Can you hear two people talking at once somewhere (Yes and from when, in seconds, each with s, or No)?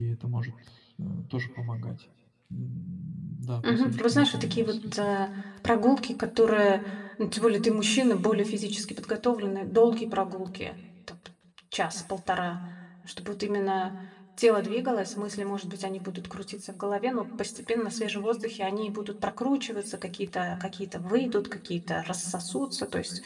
Yes, from 3.6 s